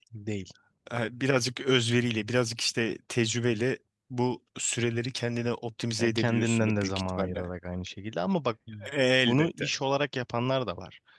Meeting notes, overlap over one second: present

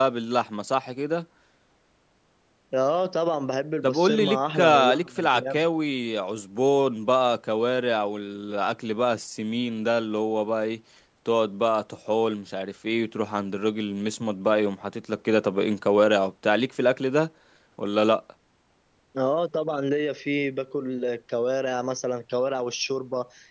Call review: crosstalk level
present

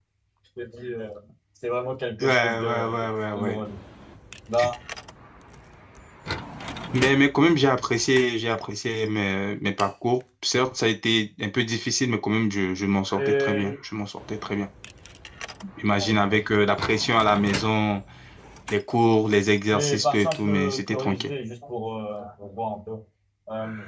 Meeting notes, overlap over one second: present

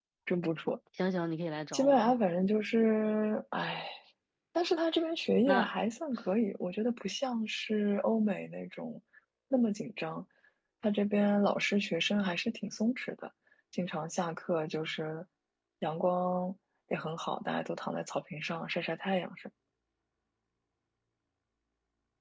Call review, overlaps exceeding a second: none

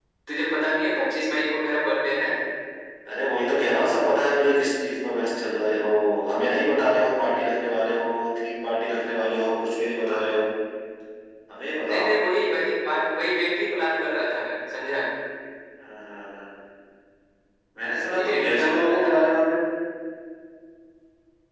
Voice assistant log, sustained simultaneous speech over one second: present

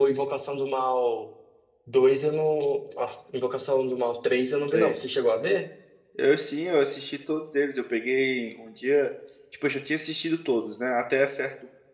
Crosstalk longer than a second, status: none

